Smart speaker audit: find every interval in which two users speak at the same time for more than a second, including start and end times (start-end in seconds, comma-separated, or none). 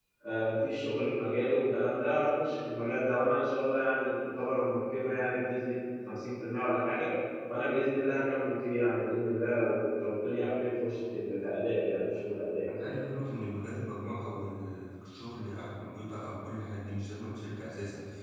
none